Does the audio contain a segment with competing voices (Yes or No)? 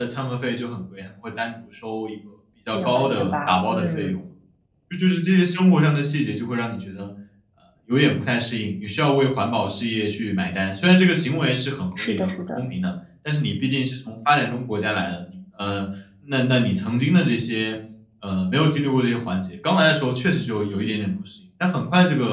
Yes